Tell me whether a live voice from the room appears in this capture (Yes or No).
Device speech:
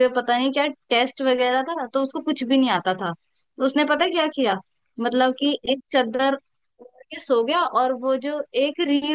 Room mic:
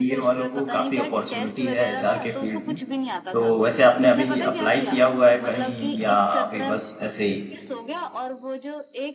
Yes